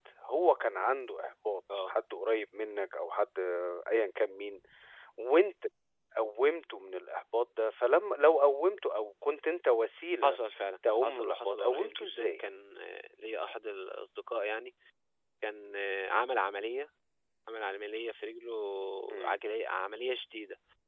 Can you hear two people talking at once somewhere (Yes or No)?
Yes